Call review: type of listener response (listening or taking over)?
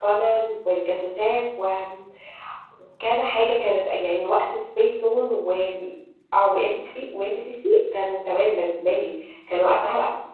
listening